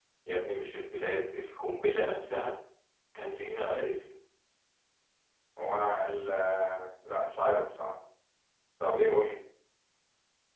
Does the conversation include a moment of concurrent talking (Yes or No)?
No